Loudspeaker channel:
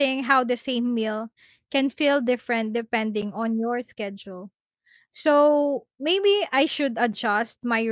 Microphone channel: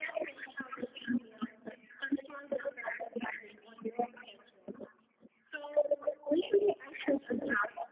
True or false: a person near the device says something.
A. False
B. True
A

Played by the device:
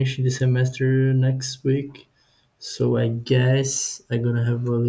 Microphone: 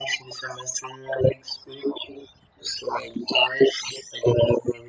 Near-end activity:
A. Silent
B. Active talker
A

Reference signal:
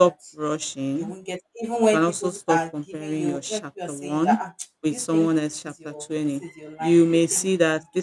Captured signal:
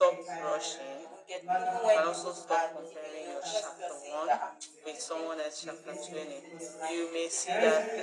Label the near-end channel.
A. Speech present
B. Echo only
A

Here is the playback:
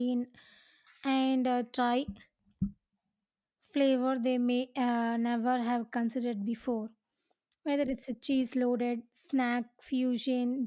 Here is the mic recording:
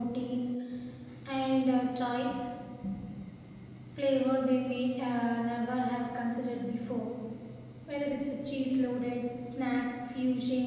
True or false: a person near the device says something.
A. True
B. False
B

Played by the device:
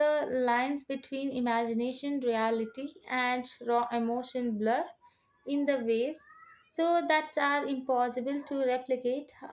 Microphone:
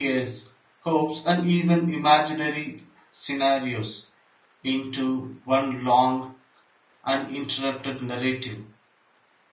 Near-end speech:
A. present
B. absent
A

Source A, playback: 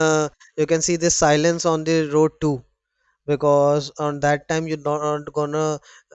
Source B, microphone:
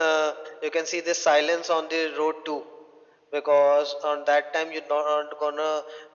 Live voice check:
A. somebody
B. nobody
B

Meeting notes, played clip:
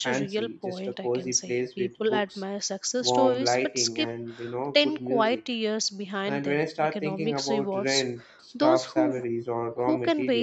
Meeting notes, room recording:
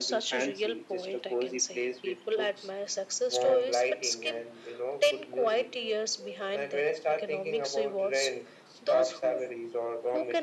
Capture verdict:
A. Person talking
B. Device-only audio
B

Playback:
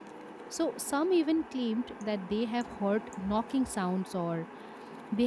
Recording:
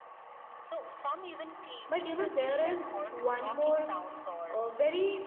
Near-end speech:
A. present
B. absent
A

